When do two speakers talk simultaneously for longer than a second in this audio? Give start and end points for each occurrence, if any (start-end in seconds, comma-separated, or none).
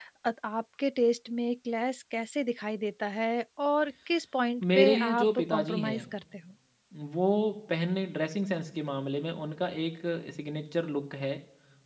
4.6-6.0